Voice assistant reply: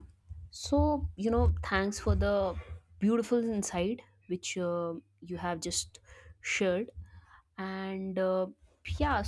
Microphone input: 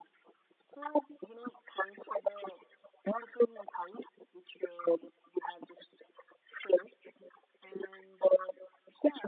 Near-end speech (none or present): none